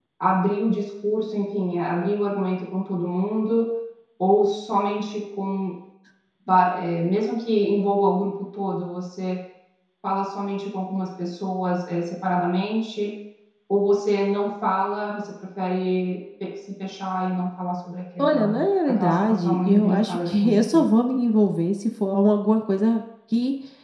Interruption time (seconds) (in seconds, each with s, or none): 18.2 s